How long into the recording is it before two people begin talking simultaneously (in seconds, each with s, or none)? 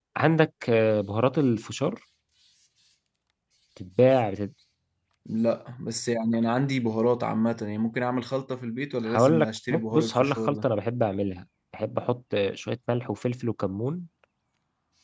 9.0 s